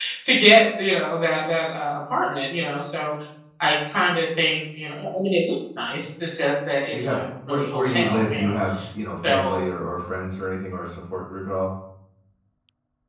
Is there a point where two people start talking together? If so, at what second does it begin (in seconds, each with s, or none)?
6.9 s